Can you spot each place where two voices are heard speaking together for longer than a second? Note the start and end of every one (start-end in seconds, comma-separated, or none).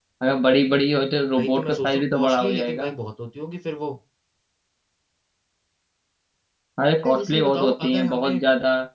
1.4-2.9, 7.0-8.4